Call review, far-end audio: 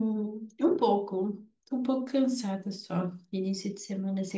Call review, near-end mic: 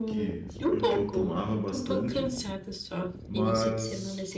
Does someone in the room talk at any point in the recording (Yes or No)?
Yes